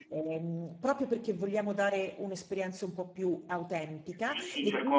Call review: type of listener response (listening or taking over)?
taking over